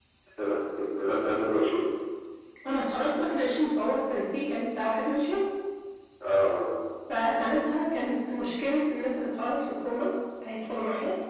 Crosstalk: none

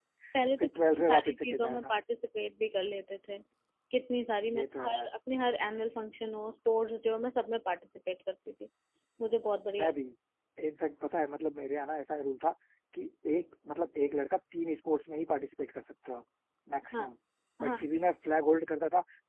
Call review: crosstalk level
present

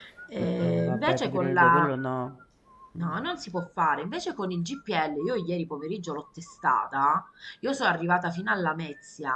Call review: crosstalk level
present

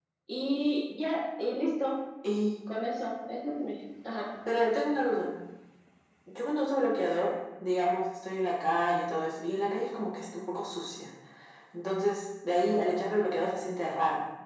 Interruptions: none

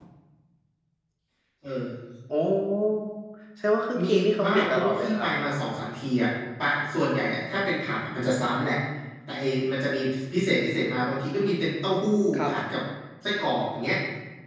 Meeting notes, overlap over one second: present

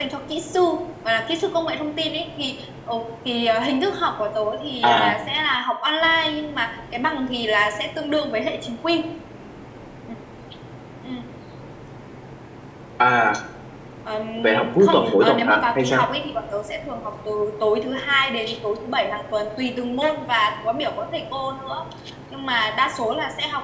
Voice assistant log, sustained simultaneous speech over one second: present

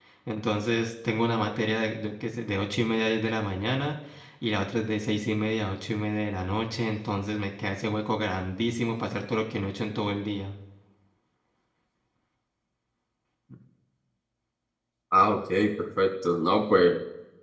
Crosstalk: none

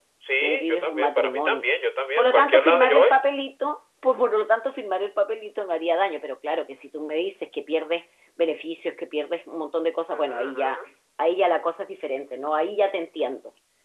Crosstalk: present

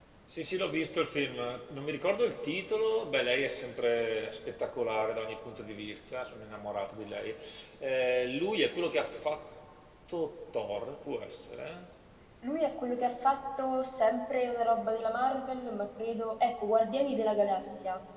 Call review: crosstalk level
none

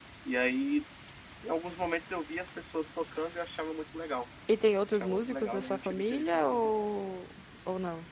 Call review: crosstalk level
present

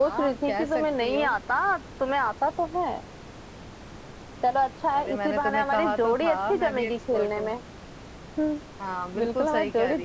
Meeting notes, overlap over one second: present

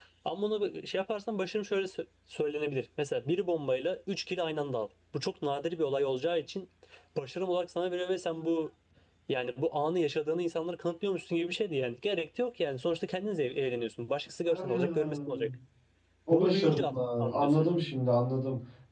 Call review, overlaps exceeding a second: present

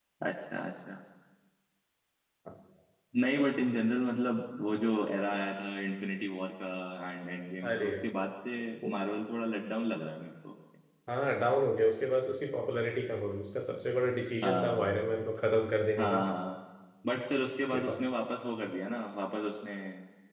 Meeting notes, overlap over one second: none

